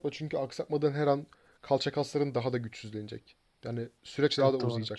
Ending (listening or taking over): taking over